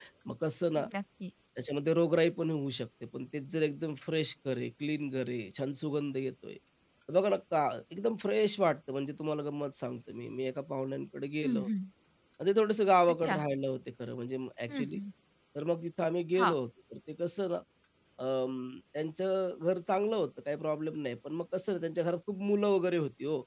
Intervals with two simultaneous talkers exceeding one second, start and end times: none

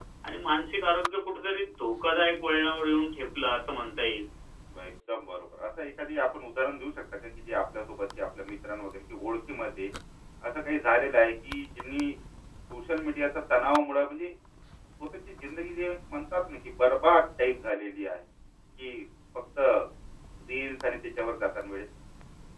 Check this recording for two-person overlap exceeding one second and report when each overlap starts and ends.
none

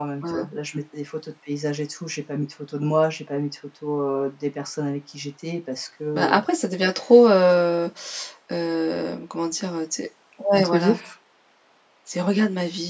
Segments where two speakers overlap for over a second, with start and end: none

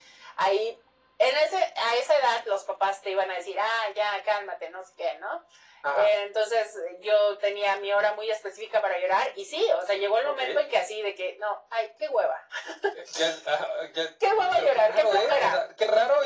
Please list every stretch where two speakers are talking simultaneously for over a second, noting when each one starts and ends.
14.4-15.6

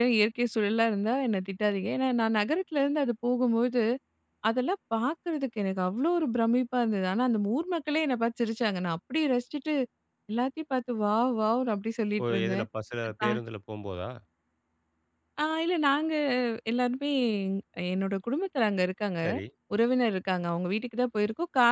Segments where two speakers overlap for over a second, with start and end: none

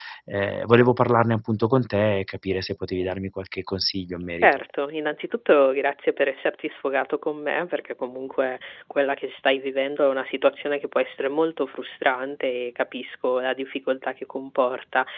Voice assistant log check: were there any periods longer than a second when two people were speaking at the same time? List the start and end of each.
none

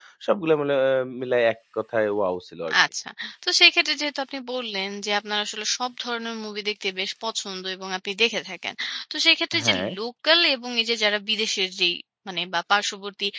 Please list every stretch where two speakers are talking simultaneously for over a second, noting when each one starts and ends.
none

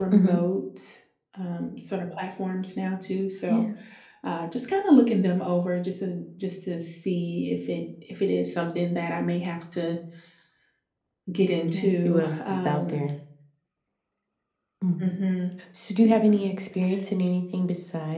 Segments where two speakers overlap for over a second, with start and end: 11.7-13.0

